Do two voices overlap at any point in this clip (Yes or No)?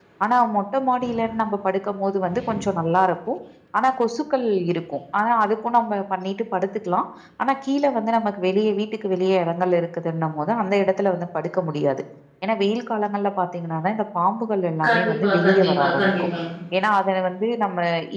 Yes